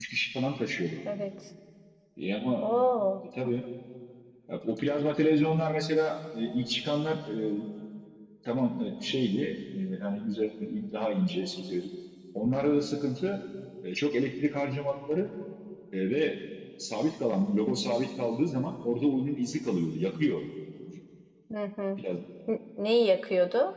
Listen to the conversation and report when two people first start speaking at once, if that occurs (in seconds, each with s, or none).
none